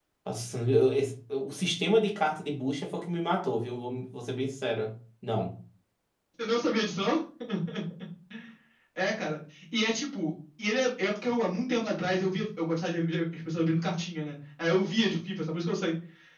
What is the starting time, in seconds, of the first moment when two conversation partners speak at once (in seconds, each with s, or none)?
none